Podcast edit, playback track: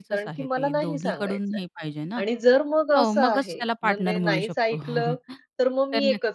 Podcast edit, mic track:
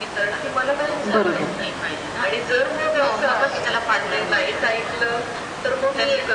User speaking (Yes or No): Yes